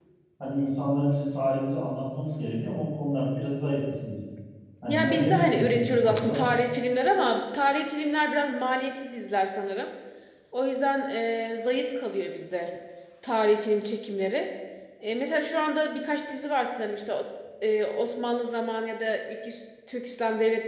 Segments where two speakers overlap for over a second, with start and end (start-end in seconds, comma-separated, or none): 4.9-6.4